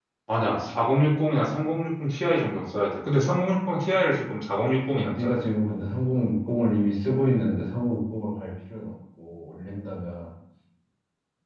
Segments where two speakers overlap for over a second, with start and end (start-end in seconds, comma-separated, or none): none